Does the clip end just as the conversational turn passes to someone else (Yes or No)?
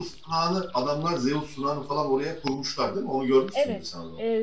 Yes